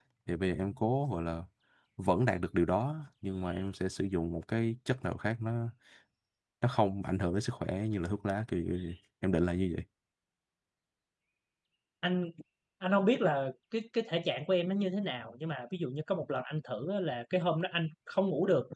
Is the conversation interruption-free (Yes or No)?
Yes